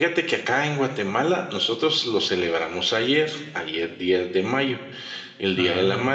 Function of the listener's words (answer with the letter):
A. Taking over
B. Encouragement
B